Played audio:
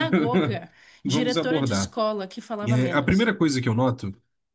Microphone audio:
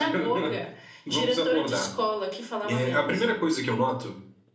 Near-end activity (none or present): none